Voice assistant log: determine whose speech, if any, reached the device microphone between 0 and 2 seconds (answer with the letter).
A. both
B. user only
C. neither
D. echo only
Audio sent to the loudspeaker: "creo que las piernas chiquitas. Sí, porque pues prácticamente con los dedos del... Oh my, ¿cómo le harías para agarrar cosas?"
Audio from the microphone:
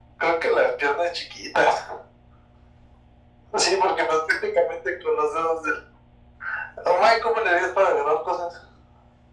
D